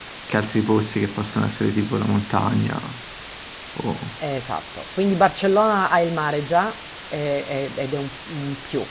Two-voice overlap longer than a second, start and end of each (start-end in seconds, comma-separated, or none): none